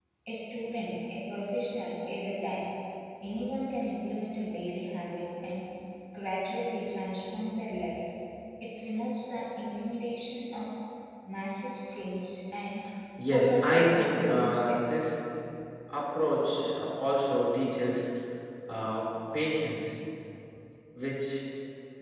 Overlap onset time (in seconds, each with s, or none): 13.3 s